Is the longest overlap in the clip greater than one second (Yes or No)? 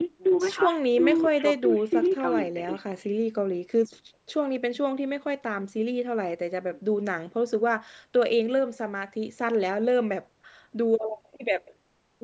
Yes